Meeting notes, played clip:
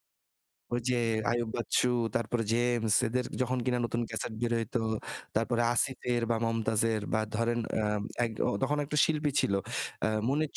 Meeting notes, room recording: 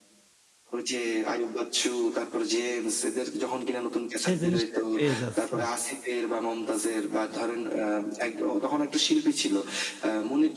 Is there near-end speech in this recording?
Yes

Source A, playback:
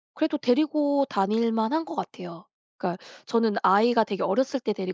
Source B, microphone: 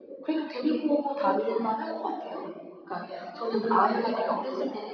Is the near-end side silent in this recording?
No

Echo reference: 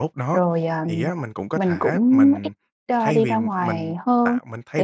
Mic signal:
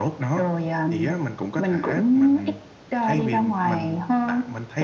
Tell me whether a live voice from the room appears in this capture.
No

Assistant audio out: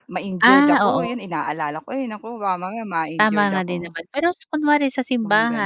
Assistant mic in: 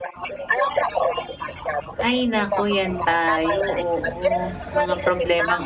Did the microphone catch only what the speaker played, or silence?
No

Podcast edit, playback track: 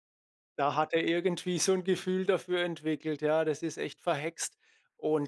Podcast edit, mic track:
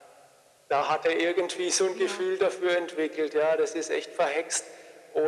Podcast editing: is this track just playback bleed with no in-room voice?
No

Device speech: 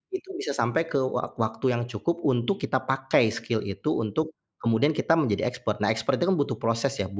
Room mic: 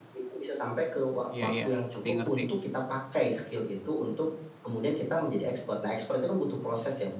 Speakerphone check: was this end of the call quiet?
No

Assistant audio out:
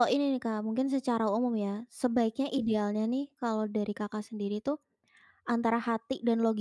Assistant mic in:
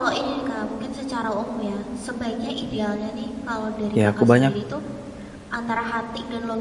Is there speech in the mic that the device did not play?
Yes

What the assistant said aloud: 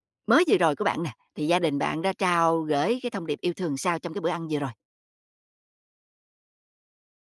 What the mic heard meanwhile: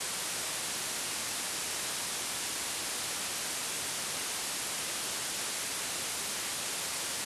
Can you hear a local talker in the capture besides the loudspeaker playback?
No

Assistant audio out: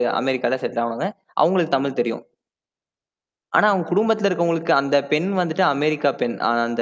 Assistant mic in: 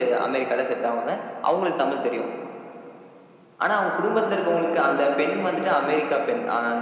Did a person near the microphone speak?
No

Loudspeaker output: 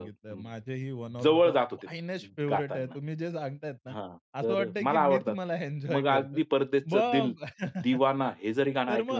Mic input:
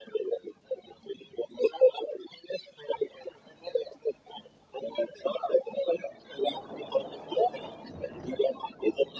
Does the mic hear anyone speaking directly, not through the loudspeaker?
No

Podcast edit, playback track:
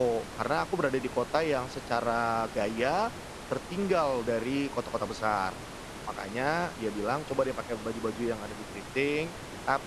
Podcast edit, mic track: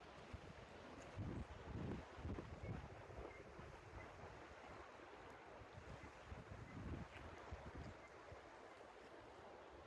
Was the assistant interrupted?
No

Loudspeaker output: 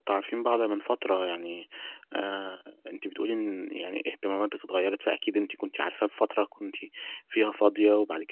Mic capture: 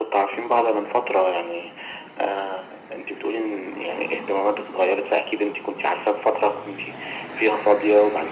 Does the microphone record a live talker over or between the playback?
No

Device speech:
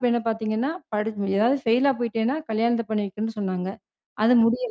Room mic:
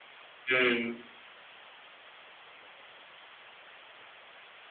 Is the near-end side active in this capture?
Yes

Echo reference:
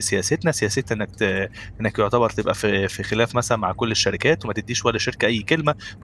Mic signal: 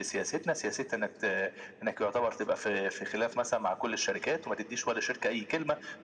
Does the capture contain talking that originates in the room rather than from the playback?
No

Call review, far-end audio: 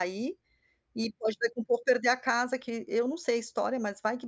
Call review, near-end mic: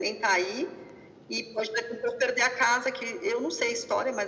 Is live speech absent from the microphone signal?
Yes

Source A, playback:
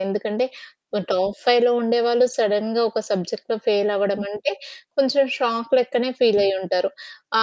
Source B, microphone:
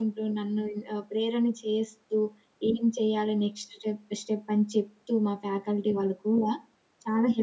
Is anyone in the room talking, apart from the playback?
Yes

